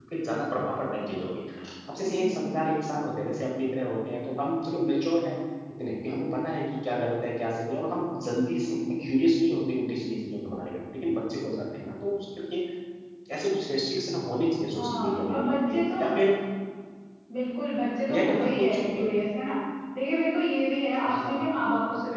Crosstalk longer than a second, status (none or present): present